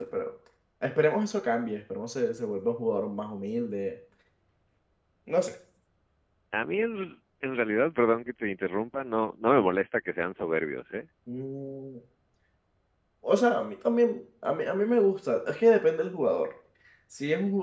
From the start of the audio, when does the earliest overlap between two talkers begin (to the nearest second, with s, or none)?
none